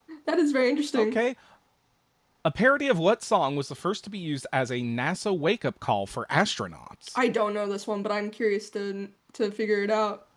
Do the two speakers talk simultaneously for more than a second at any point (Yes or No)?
No